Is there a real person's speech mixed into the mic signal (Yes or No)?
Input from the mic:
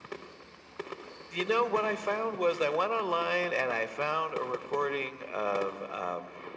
No